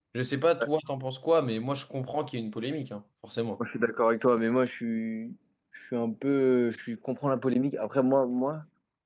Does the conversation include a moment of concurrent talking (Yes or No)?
No